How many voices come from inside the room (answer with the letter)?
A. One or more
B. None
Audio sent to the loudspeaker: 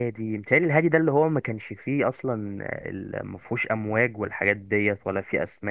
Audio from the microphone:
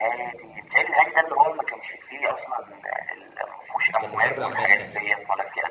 A